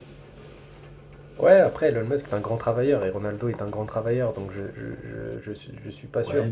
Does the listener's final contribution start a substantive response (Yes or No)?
Yes